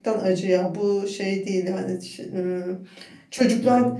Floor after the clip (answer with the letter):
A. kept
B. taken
A